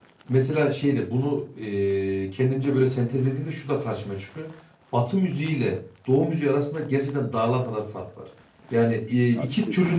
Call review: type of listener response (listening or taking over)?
listening